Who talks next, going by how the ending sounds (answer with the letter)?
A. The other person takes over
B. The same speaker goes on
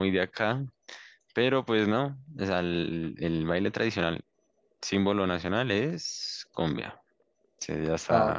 A